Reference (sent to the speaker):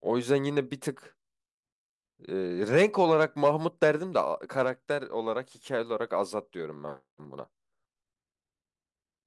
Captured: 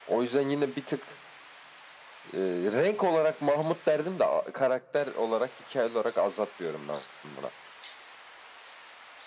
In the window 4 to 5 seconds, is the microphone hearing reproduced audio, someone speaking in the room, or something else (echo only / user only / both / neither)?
echo only